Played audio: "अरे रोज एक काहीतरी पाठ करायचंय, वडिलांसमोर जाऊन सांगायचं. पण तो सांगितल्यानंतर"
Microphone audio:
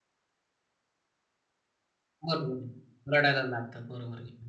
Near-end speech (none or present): present